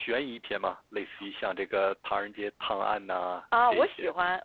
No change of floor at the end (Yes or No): No